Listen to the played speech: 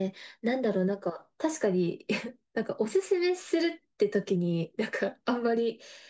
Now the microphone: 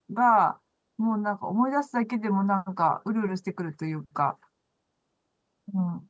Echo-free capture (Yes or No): Yes